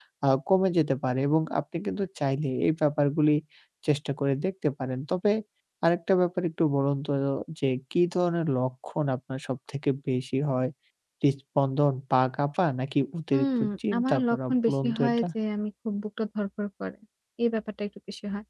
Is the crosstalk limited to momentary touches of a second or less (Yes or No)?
No